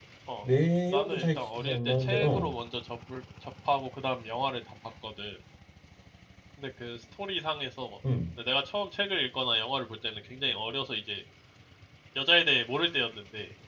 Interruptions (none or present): present